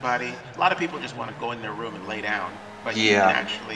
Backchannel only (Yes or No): Yes